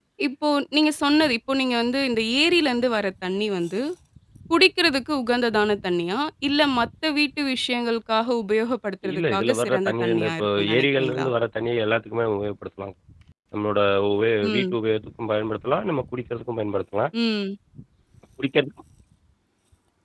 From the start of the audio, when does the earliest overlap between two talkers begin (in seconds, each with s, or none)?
9.1 s